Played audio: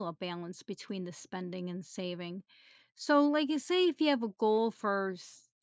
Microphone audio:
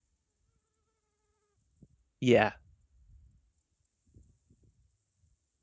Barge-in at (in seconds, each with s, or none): 2.2 s